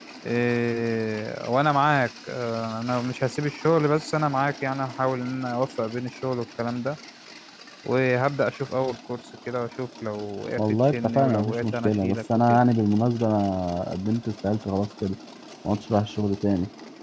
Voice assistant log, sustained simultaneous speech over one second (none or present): present